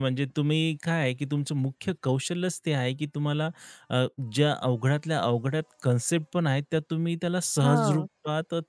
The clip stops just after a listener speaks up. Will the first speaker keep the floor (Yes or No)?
Yes